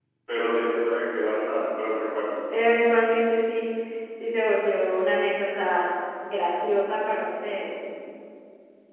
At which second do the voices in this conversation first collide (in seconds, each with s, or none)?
none